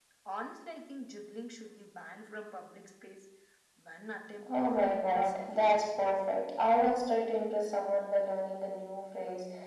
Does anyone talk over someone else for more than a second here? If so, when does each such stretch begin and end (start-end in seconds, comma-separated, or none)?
4.5-5.8